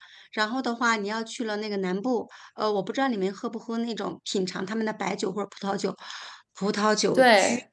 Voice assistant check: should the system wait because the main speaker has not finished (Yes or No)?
Yes